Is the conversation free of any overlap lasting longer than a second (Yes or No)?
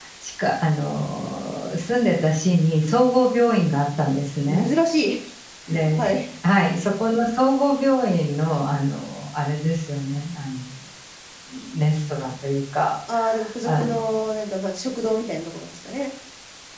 Yes